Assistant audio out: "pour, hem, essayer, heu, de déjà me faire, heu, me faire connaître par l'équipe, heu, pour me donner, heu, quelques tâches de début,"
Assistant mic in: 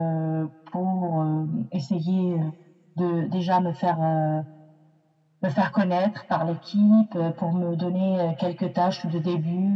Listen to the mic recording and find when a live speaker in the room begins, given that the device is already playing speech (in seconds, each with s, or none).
none